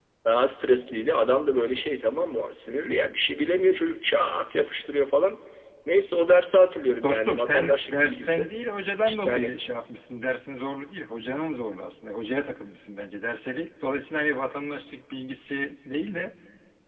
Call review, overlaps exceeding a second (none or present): present